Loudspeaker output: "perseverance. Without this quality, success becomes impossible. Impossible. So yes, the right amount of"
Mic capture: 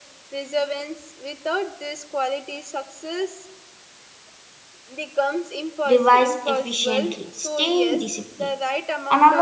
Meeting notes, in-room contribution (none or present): present